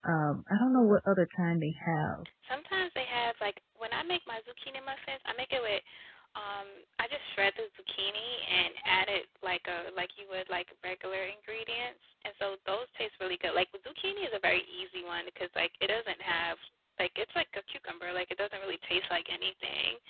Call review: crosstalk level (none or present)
none